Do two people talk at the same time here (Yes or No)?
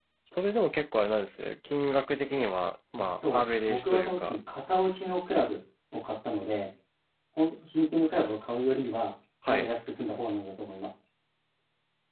Yes